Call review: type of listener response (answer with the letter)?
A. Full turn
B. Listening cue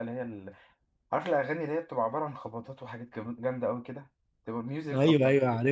A